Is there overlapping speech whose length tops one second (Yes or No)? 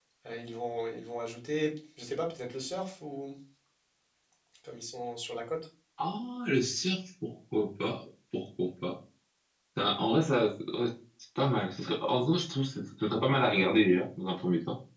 No